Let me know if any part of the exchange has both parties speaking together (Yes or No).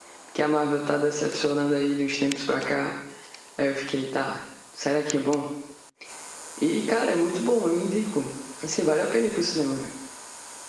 No